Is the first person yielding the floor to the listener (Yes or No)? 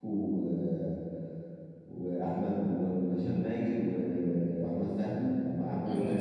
Yes